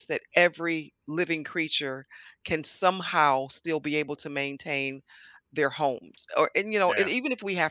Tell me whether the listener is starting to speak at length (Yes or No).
No